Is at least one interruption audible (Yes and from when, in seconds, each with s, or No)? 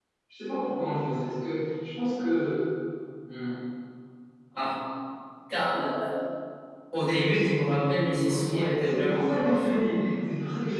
Yes, from 7.1 s